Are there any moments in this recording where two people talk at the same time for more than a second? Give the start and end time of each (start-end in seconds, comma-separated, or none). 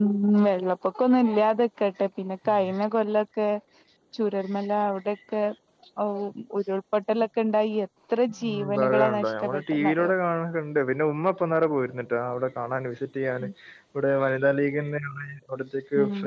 8.5-10.1